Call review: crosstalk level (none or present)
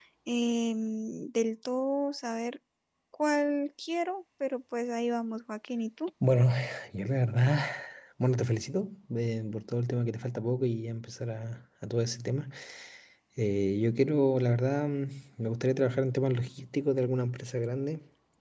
none